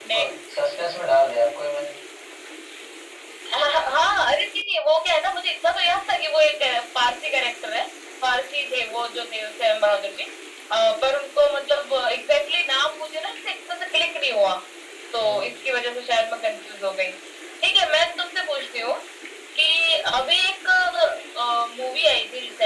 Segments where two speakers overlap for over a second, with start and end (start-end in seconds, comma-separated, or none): none